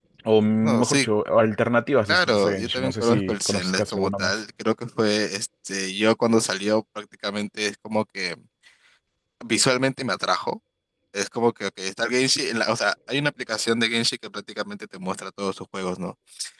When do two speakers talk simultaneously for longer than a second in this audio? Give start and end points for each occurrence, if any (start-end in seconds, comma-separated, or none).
2.0-4.4